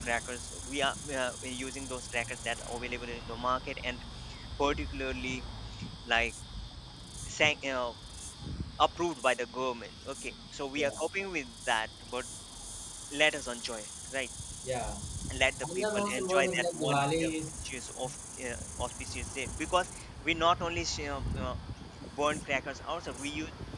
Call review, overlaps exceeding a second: present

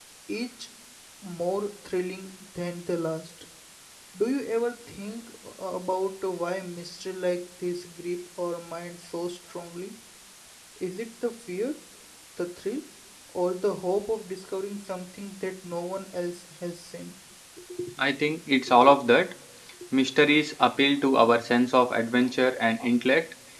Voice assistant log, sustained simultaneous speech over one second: none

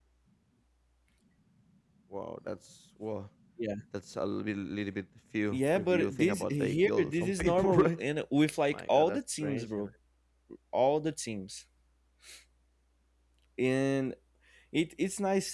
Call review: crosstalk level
present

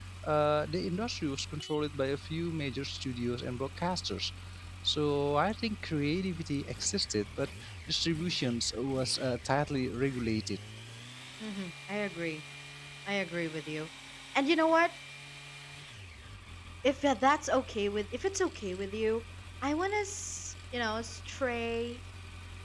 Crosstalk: none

